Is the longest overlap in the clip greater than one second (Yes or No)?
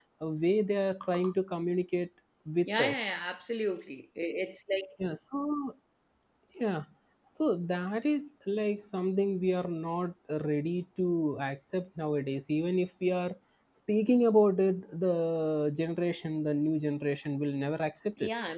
No